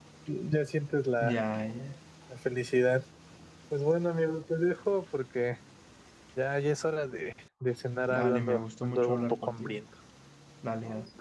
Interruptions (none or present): present